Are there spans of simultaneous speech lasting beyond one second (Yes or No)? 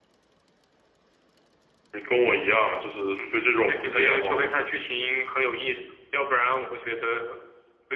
Yes